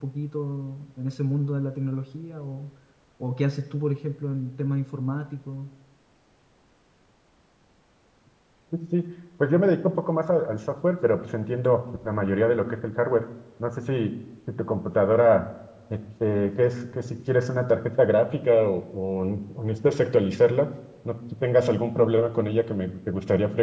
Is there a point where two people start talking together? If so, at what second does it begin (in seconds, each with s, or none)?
none